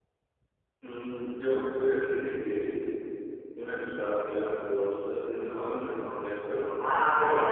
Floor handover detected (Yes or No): Yes